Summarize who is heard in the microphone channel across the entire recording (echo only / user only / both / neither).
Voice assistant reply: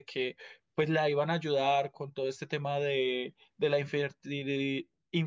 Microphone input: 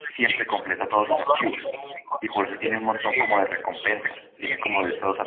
both